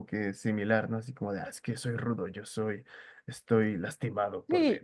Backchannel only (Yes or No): No